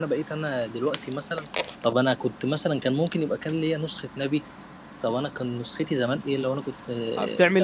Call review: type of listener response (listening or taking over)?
taking over